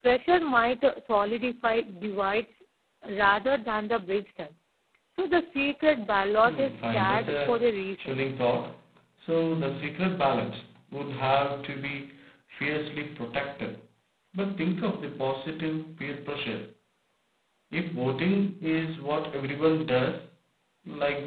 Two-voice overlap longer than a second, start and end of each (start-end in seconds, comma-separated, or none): 6.4-8.2